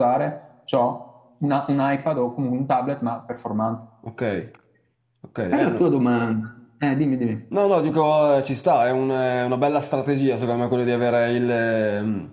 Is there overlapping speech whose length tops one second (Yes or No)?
No